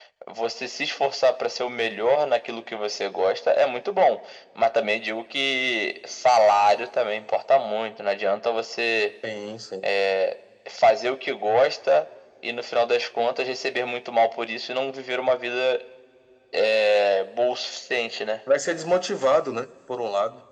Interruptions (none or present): none